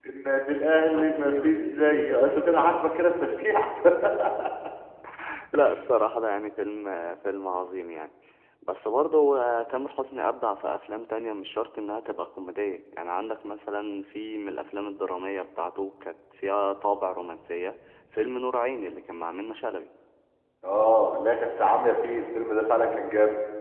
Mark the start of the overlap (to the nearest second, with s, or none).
1 s